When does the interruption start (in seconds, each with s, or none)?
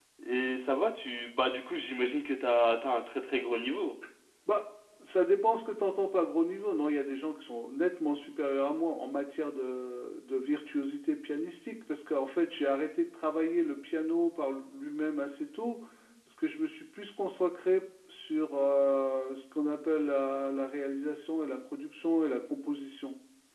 none